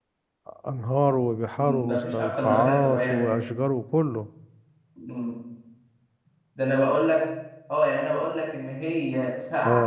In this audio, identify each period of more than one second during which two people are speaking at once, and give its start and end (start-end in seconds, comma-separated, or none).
1.6-3.3